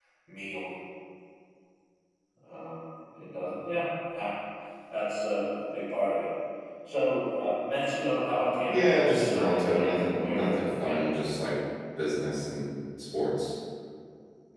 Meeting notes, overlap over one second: present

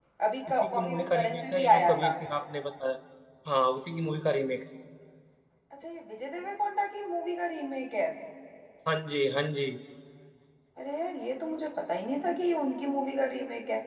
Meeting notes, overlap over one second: present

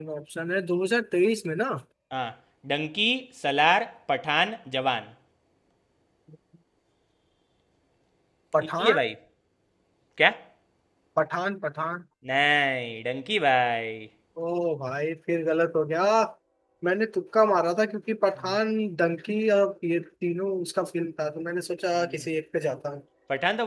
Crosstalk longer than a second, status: none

